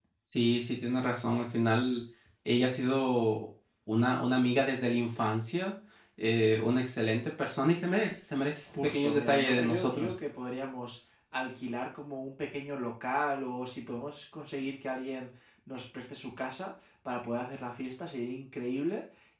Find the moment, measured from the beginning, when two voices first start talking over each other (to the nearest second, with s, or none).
9 s